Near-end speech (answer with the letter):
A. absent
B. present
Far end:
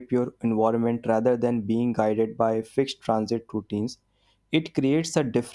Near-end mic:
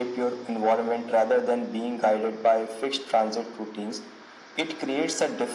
A